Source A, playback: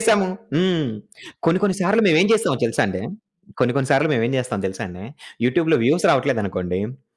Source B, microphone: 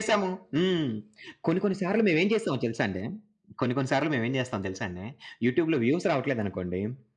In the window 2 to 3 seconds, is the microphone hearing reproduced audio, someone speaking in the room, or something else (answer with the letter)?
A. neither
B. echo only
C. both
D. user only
B